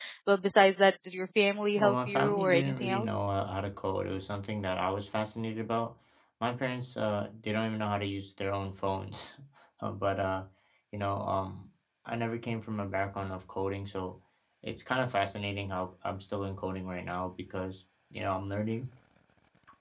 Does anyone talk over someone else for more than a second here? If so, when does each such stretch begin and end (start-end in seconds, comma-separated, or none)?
1.8-3.2